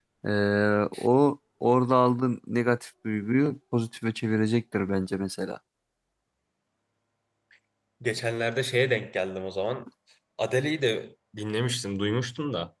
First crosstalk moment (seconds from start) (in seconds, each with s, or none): none